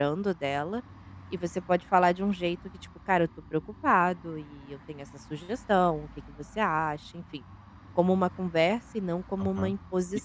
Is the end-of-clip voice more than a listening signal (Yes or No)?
Yes